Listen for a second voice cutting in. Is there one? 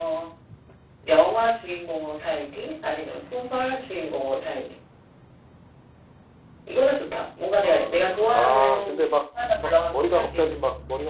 Yes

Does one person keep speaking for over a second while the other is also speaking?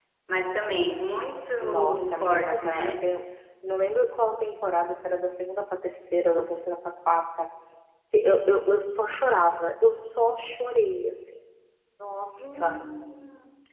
Yes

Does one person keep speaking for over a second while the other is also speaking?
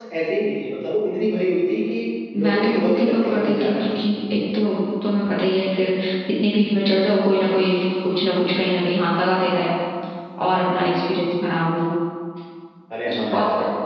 Yes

